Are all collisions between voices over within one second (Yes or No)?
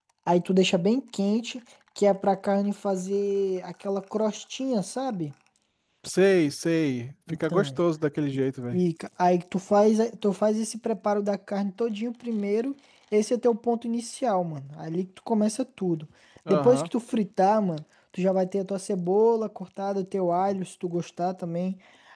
Yes